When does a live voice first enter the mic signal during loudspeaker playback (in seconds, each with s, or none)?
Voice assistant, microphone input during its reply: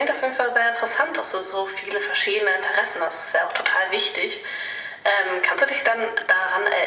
none